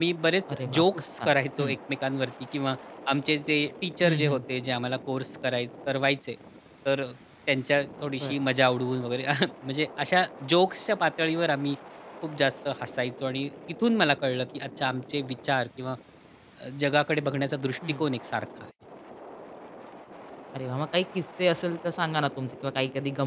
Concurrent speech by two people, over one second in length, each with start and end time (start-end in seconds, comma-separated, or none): 0.5-1.8